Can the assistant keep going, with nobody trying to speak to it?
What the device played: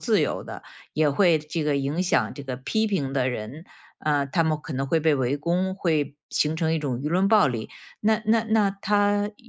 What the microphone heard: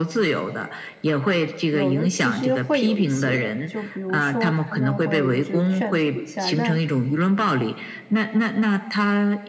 No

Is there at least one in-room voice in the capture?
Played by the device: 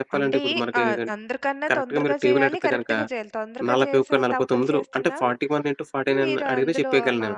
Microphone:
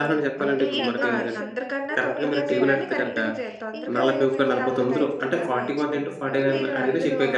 Yes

